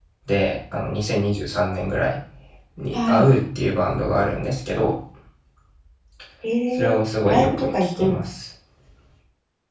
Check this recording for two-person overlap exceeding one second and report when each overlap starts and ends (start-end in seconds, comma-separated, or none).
6.8-8.2